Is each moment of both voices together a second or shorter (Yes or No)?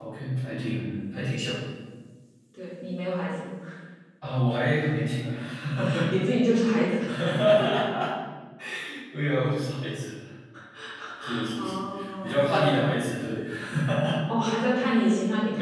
No